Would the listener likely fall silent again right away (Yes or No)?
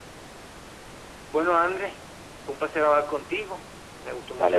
Yes